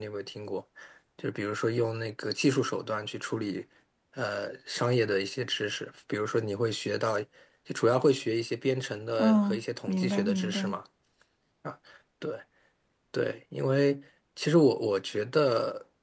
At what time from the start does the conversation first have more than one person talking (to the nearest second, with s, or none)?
9 s